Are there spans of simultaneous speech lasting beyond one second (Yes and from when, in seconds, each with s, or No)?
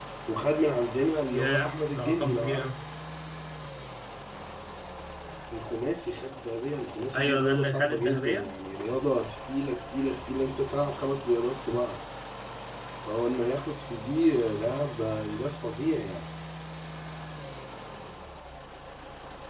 Yes, from 1.3 s